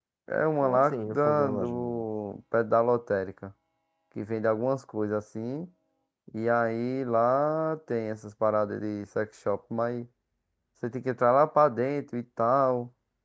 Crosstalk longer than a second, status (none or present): present